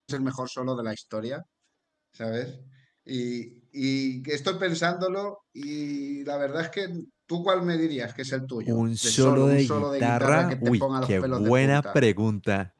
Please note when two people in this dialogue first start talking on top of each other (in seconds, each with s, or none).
8.7 s